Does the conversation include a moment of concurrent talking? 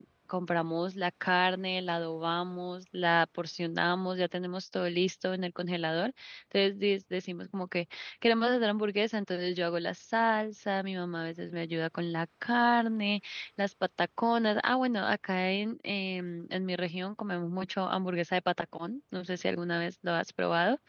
No

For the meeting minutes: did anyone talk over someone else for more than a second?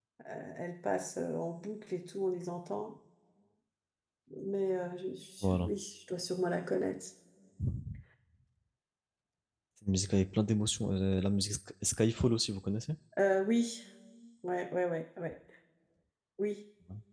No

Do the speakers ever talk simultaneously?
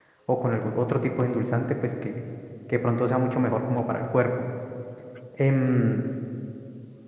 No

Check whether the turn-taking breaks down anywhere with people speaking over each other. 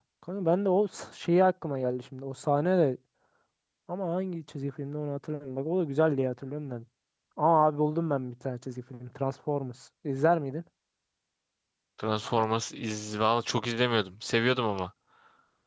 No

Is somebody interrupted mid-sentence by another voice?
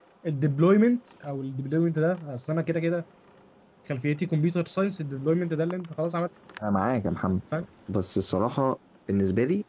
No

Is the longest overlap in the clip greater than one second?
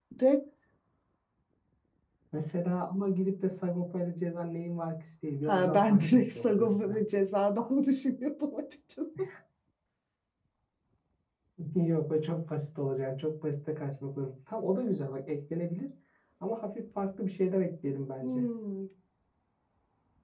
Yes, from 5.5 s

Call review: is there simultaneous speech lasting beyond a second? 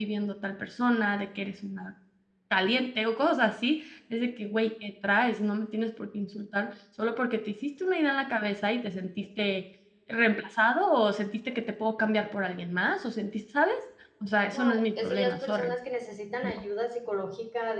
Yes, from 14.5 s

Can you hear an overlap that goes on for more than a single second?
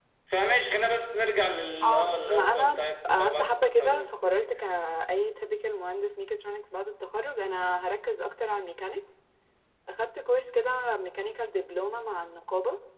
Yes, from 1.8 s

